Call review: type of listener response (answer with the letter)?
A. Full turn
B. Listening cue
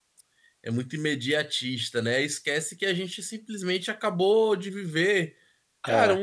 B